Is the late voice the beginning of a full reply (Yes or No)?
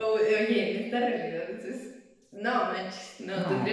No